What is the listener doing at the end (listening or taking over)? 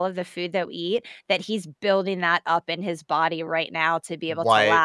listening